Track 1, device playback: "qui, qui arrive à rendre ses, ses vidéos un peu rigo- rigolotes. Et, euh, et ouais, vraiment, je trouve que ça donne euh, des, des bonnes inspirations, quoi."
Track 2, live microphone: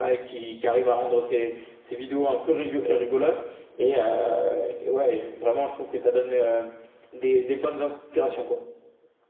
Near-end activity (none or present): none